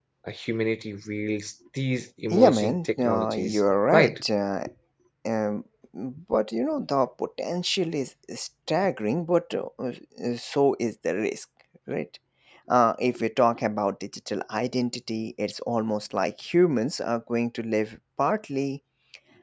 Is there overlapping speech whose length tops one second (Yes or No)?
Yes